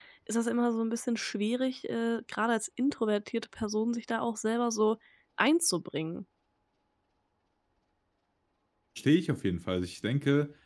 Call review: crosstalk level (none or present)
none